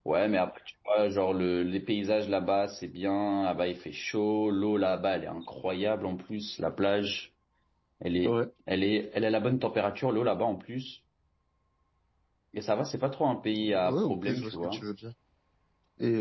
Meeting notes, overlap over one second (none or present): present